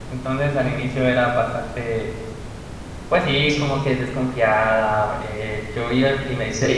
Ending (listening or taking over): taking over